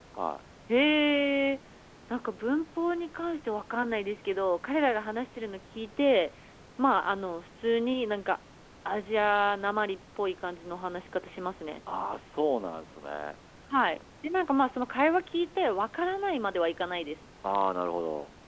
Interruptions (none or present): none